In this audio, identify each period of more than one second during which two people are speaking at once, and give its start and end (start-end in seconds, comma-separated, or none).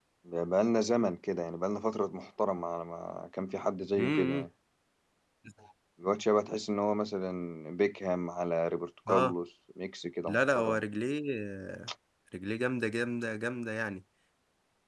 none